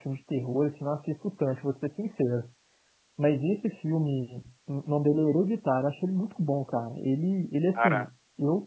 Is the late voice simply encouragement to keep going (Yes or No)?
Yes